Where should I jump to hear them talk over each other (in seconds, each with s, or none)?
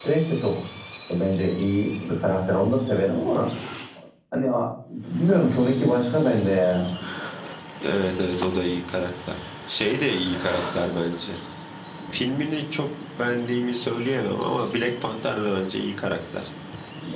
none